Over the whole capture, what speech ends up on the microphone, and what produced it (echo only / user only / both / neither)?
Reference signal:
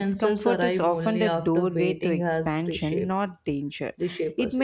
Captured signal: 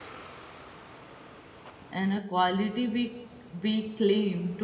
user only